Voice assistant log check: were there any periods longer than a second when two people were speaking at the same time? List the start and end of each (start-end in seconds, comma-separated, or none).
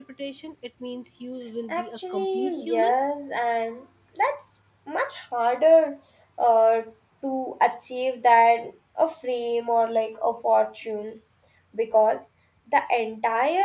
1.7-2.9